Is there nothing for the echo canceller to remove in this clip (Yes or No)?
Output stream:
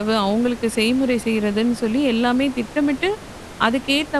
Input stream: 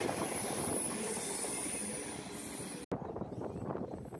Yes